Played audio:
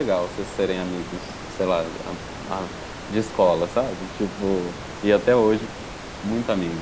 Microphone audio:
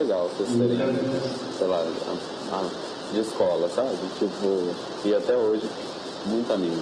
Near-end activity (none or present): present